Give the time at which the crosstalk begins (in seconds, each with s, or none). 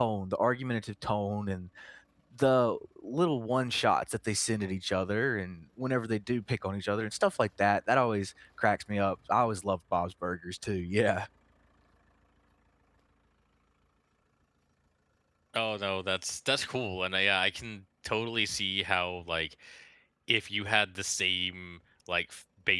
none